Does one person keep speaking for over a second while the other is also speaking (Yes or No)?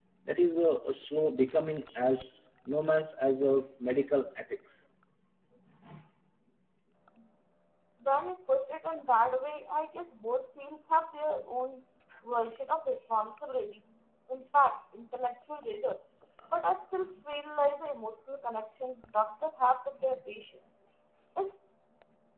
No